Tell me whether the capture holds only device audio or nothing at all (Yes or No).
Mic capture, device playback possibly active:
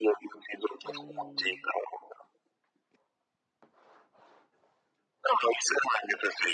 No